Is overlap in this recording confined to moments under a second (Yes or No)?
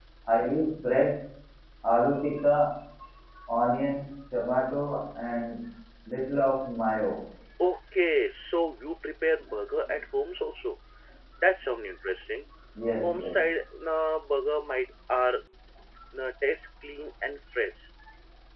Yes